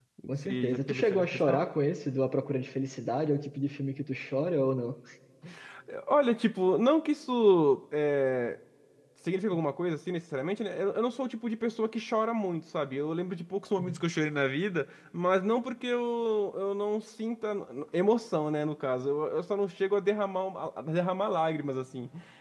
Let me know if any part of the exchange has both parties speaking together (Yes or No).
Yes